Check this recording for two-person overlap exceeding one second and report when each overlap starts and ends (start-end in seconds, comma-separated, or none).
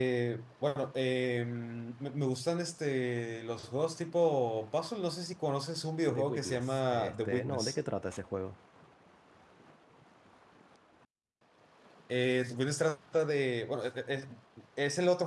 6.1-7.8